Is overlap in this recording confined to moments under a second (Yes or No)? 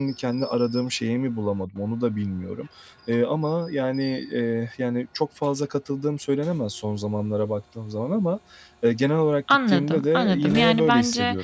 No